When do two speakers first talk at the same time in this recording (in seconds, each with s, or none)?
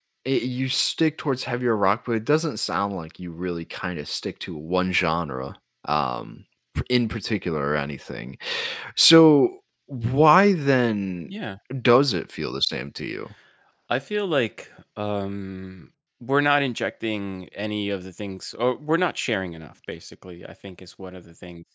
none